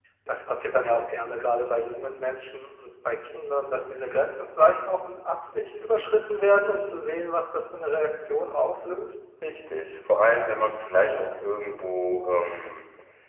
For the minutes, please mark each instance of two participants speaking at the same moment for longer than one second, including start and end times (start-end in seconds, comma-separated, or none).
none